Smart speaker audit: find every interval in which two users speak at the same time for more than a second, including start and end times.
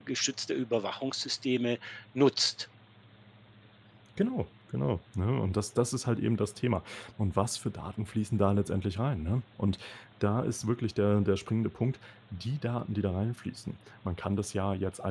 none

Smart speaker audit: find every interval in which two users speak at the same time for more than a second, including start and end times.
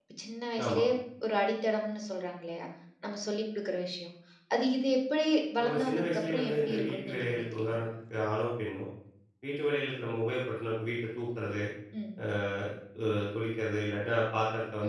5.6-7.8

